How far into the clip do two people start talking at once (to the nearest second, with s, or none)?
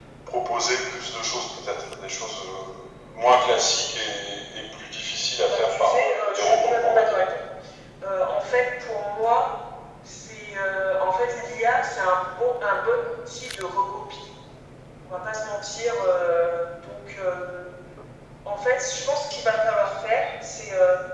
5 s